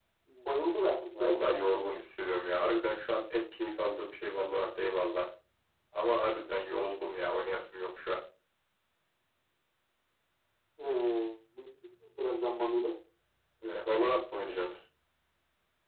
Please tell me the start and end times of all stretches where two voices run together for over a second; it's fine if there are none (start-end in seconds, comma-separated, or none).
none